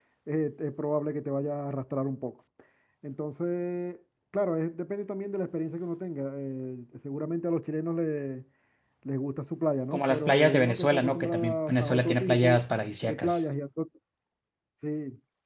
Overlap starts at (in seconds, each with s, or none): 9.9 s